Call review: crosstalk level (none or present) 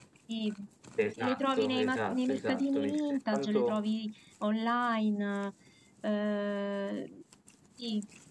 present